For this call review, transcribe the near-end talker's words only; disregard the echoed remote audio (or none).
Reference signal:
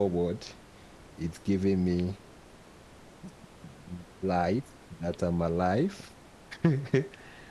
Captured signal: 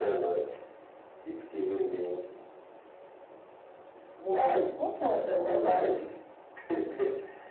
One. What has one in it?